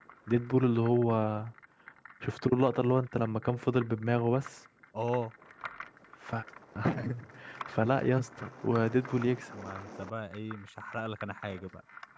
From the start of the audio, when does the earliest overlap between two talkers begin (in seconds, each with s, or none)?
none